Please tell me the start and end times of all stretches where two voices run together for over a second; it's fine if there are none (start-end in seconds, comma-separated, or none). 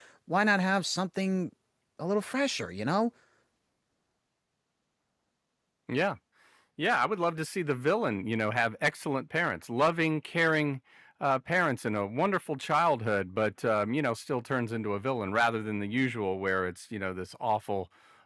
none